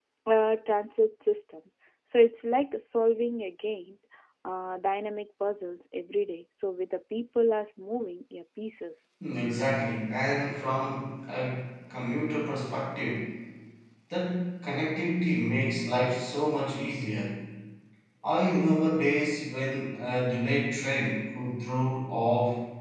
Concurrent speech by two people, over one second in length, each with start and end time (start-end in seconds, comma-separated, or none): none